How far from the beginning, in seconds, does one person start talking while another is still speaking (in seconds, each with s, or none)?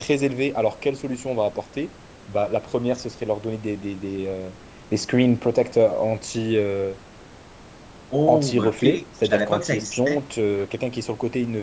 8.3 s